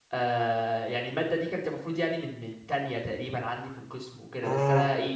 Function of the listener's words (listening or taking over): listening